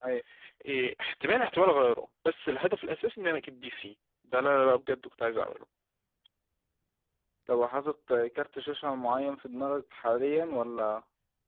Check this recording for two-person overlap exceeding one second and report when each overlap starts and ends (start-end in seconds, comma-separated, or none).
none